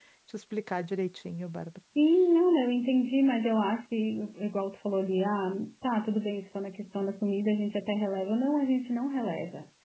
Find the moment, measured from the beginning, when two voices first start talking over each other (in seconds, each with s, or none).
none